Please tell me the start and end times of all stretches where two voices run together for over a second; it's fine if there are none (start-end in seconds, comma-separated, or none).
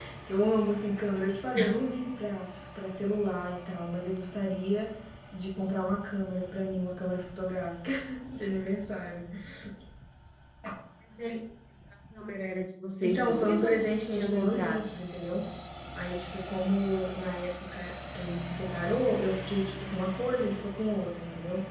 13.0-14.8